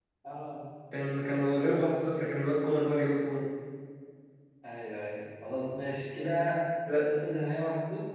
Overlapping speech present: No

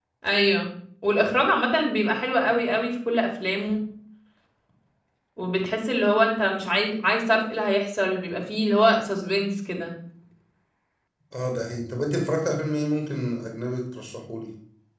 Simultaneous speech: No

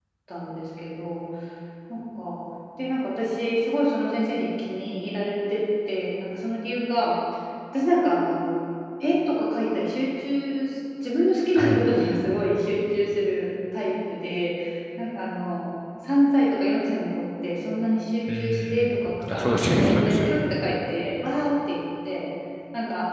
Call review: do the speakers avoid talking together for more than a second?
No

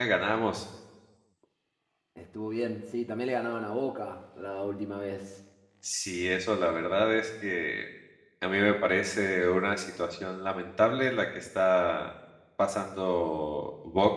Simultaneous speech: No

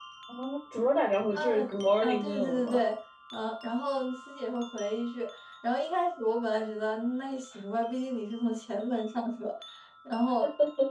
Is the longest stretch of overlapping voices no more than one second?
No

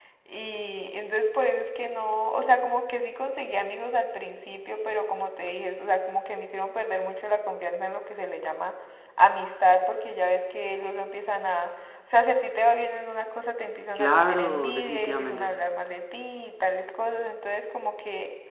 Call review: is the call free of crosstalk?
No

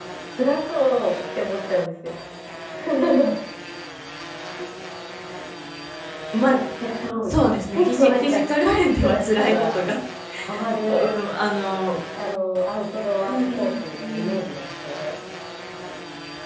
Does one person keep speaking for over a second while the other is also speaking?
Yes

